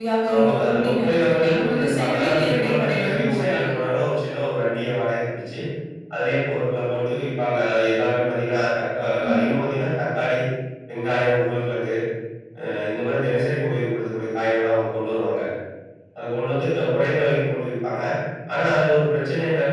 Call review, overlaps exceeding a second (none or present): present